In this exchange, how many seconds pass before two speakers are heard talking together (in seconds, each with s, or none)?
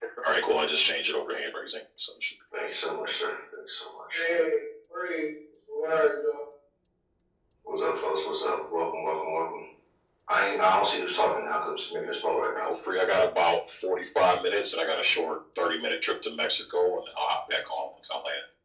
none